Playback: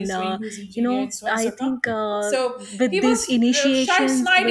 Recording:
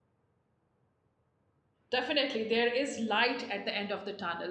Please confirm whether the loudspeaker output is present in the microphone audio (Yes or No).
No